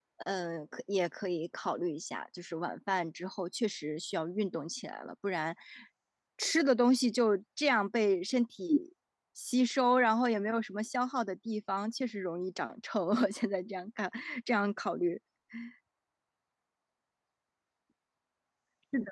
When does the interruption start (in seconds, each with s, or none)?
none